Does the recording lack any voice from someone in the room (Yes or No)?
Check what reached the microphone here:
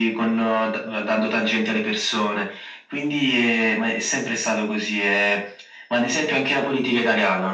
Yes